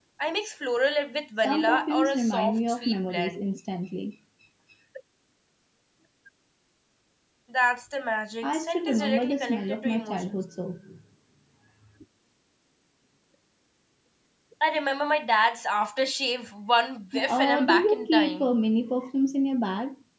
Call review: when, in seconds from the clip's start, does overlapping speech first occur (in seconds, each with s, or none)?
1.4 s